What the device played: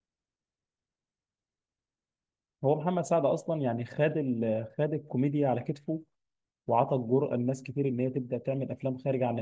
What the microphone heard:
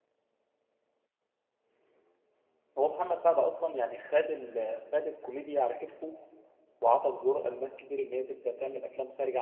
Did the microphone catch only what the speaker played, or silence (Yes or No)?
Yes